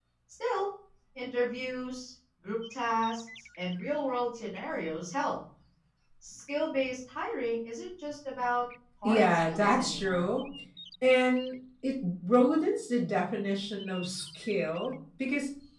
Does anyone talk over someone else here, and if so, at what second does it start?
9.0 s

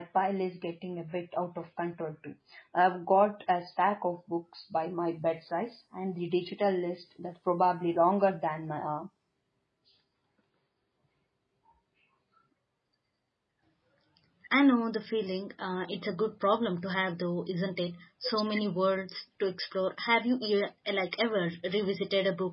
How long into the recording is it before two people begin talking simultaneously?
none

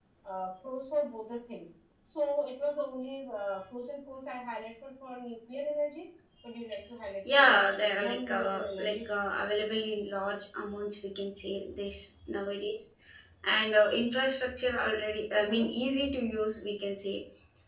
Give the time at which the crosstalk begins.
7.3 s

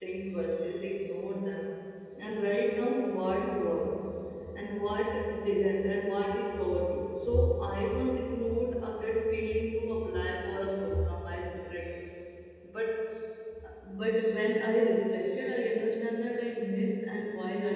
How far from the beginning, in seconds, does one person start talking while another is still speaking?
none

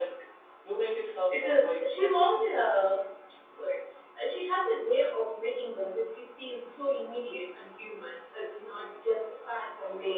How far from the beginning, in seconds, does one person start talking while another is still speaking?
1.3 s

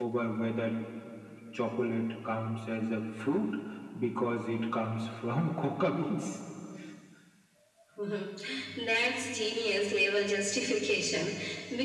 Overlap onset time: none

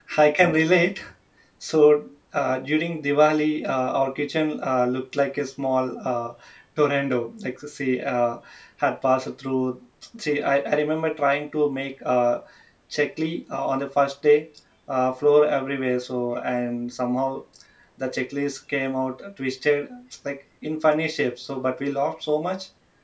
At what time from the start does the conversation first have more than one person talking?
none

